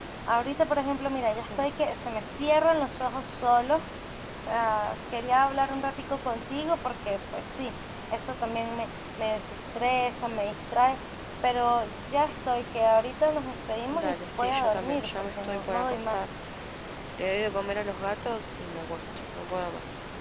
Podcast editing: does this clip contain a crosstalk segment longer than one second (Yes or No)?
Yes